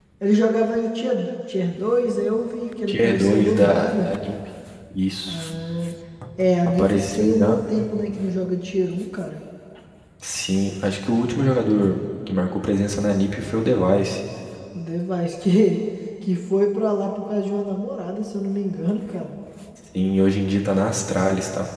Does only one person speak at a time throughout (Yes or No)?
No